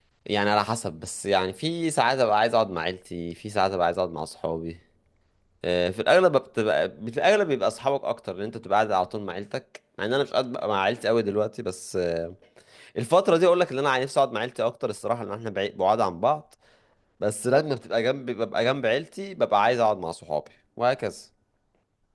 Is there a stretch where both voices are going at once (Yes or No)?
No